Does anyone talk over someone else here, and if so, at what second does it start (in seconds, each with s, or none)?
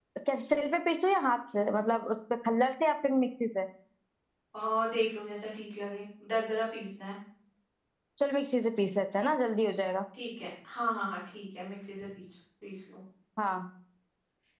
none